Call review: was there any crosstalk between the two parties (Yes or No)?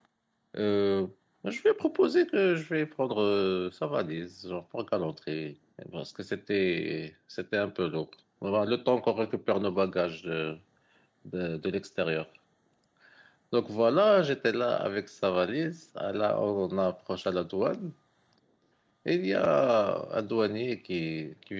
No